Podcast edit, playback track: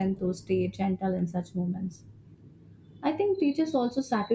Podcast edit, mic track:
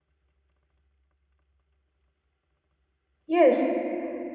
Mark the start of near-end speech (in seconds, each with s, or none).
3.2 s